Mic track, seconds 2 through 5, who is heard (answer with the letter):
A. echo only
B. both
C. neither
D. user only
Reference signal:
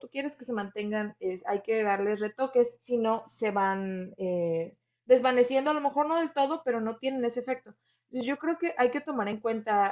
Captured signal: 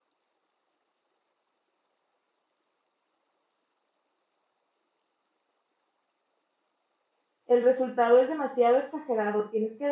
C